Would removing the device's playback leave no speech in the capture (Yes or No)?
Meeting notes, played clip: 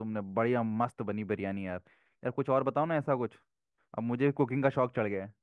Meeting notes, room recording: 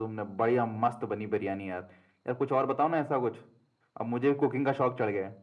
Yes